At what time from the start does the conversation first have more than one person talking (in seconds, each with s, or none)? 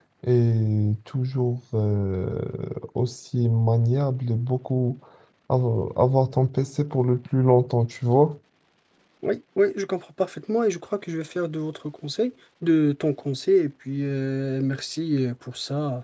none